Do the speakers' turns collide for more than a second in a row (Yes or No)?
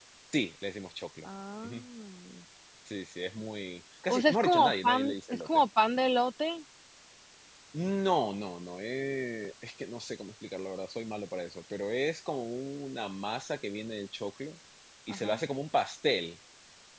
Yes